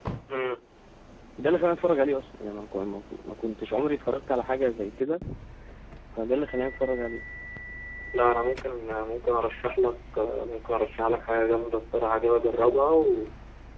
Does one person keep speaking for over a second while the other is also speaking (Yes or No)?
No